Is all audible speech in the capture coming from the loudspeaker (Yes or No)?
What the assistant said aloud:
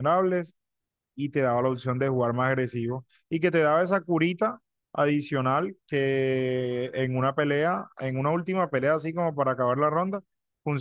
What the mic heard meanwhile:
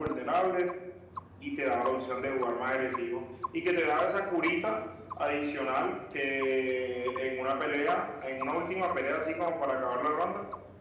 Yes